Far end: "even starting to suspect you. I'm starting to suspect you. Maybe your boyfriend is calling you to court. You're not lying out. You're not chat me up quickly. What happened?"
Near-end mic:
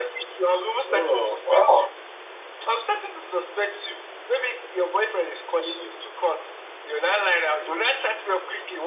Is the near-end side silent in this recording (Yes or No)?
No